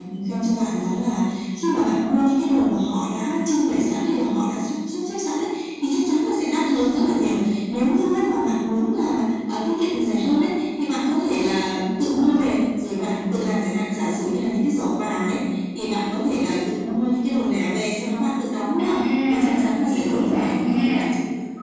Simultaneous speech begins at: 18.8 s

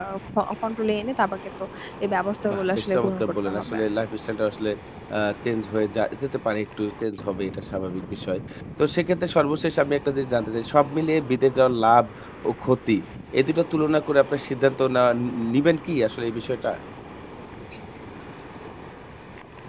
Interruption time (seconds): 2.5 s

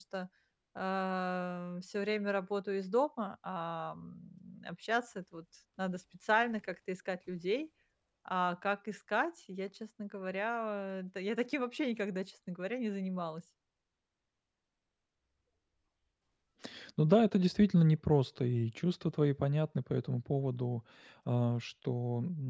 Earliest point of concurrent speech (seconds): none

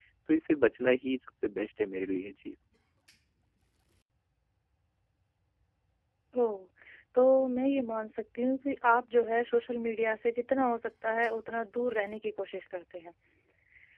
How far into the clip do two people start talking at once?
none

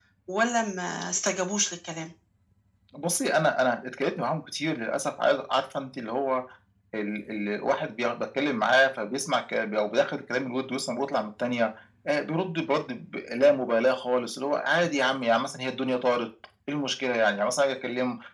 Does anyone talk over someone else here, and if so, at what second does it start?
none

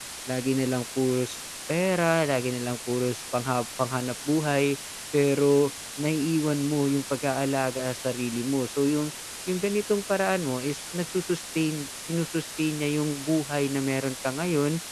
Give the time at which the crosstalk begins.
none

